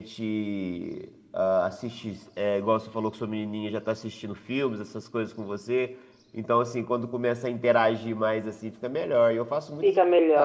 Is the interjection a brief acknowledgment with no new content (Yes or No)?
No